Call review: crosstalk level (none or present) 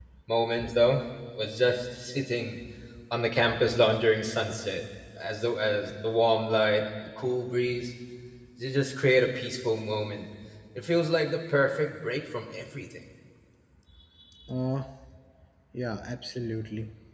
none